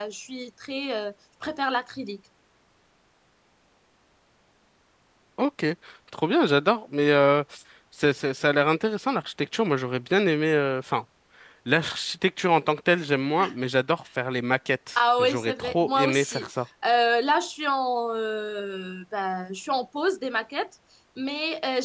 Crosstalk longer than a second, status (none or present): present